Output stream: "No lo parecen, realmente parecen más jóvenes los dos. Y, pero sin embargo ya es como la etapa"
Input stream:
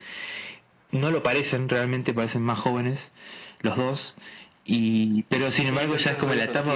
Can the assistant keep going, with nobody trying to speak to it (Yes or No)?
No